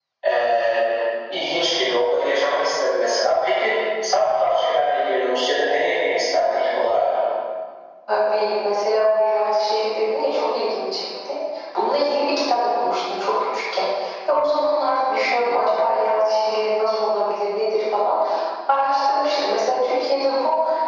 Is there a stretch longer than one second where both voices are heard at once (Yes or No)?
No